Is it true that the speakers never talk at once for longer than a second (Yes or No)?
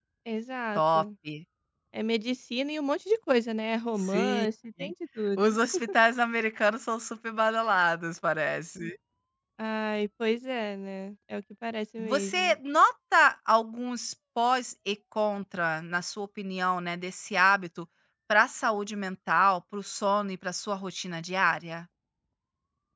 Yes